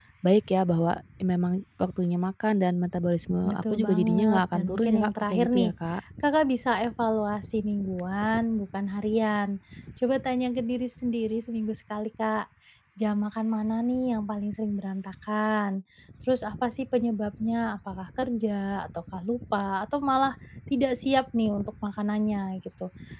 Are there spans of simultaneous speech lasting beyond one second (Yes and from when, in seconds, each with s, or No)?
Yes, from 3.4 s